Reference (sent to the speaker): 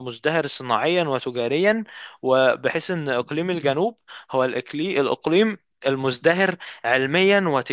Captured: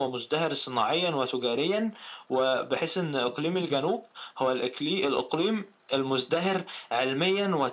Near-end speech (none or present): none